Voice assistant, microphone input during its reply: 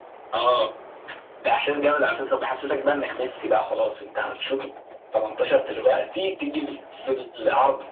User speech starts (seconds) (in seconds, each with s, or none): none